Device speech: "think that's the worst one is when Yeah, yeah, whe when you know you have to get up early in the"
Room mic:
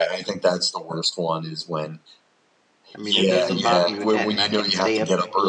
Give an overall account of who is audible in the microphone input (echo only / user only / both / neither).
both